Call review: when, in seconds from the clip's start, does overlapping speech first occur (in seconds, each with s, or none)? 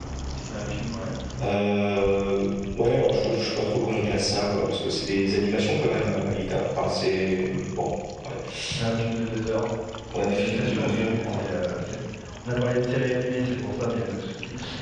10.2 s